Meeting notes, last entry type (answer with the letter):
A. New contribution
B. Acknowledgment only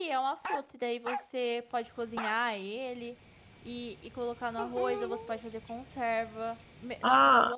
A